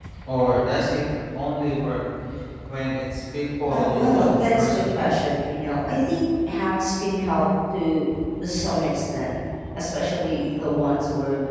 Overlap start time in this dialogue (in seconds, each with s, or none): 3.7 s